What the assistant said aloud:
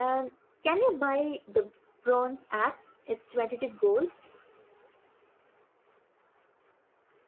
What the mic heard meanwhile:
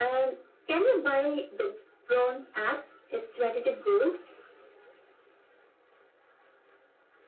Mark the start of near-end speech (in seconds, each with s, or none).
none